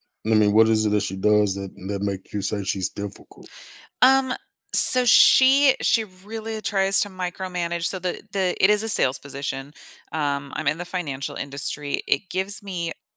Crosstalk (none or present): none